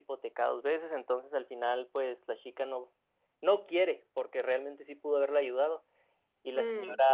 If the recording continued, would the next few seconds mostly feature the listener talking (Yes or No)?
No